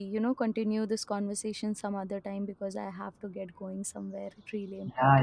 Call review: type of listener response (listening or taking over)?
taking over